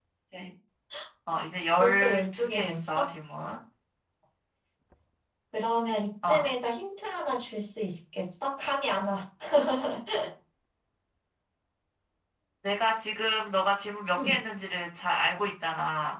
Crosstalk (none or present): present